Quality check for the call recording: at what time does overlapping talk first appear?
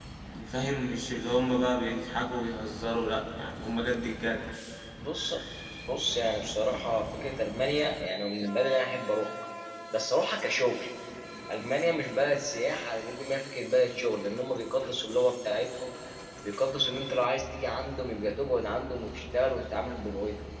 none

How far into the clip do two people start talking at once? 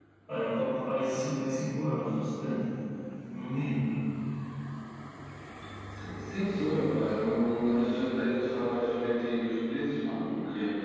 none

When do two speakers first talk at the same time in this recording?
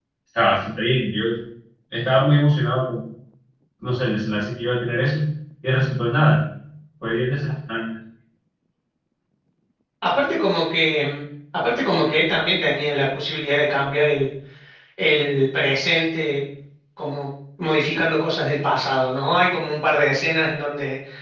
none

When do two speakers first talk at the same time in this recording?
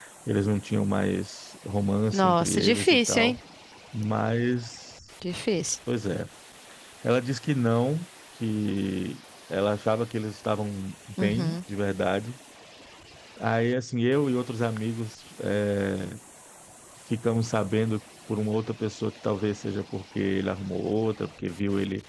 2.1 s

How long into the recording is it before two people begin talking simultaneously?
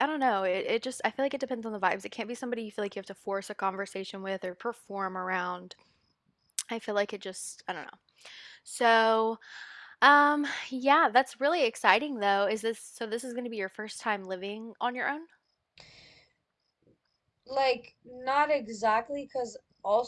none

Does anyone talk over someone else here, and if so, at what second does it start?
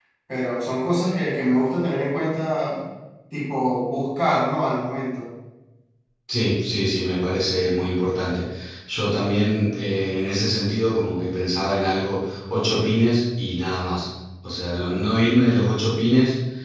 none

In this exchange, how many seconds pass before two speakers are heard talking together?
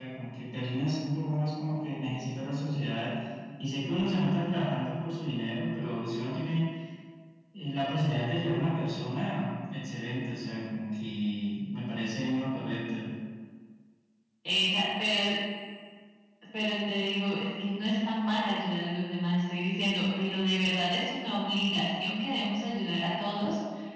none

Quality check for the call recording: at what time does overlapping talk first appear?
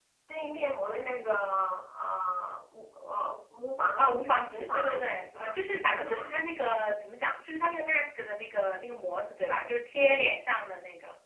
4.0 s

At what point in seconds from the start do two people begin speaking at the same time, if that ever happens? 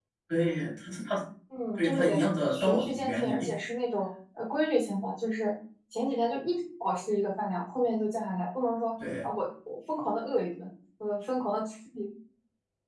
1.8 s

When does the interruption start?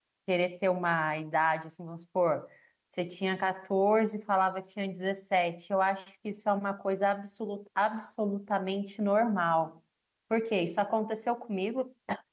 none

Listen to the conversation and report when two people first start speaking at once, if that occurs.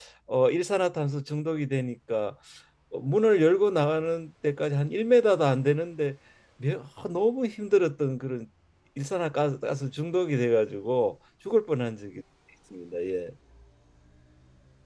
none

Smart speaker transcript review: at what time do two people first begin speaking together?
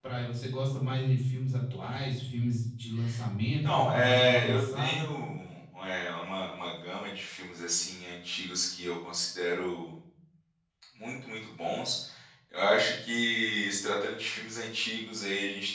3.6 s

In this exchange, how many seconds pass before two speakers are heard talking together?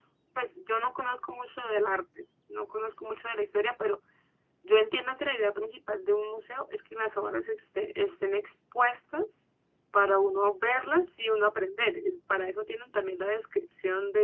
none

